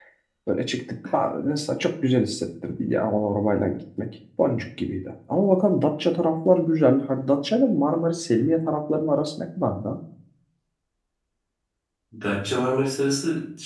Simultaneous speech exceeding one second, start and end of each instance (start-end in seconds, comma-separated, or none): none